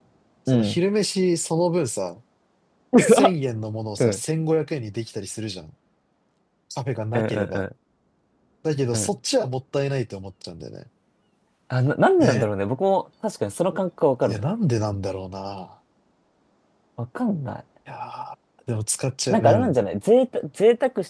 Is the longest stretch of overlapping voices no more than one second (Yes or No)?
Yes